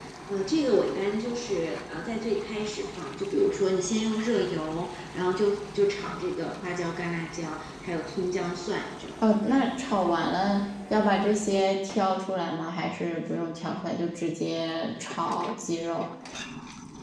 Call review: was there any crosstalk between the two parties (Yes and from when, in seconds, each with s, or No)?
No